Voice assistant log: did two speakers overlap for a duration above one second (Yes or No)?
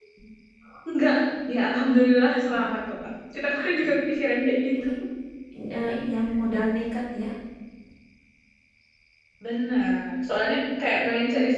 No